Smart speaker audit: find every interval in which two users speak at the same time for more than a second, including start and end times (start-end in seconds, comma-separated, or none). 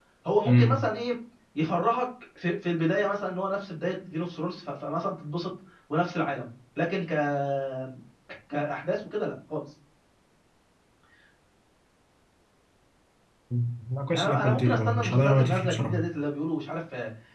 14.1-16.0